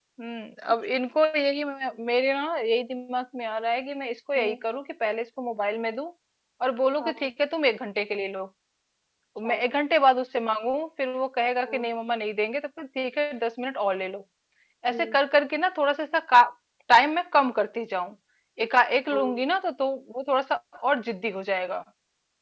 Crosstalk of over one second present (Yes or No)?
No